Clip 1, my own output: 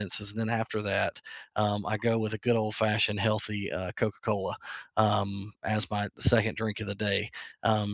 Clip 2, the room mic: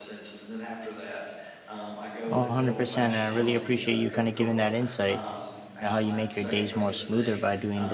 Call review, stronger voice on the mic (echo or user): user